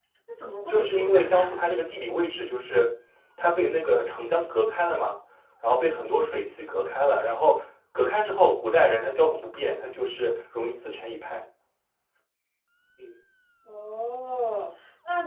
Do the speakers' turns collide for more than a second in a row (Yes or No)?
Yes